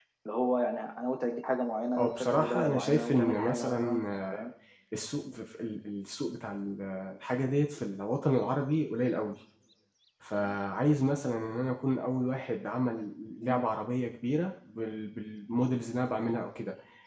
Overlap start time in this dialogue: 1.9 s

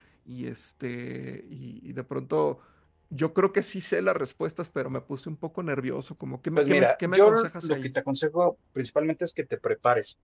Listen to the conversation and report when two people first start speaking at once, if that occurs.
6.6 s

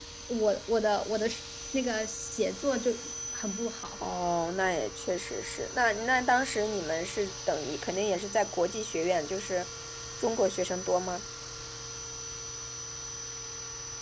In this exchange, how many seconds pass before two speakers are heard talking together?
none

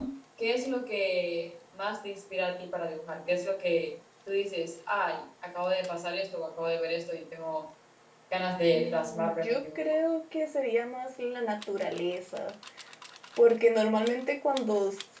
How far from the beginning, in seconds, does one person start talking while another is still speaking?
8.7 s

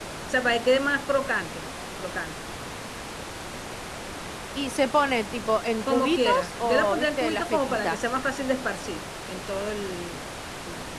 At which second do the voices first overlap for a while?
5.9 s

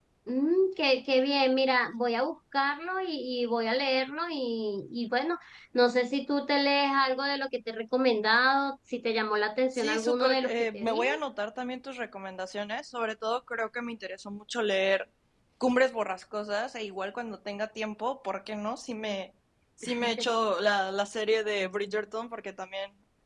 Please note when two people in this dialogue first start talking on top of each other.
9.7 s

